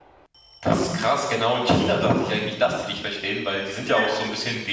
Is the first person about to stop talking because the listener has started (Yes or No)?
No